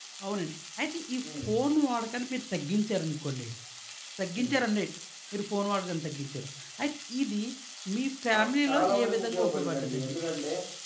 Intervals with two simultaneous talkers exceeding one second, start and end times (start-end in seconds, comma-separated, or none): 8.3-10.1